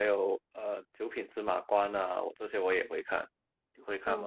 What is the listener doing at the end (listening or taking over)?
taking over